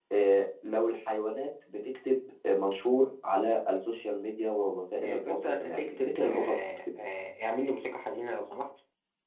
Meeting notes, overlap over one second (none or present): present